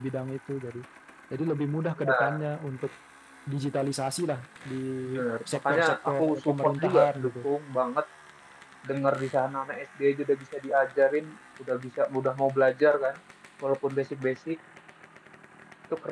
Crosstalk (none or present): present